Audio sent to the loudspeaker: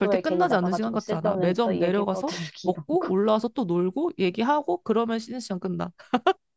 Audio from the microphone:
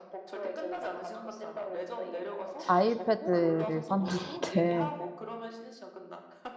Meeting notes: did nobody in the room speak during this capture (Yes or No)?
No